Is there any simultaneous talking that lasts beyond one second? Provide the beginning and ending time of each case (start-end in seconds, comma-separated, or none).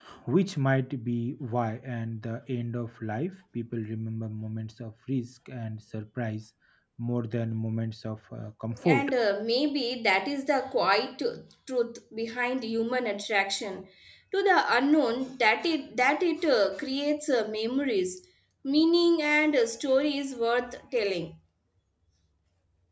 none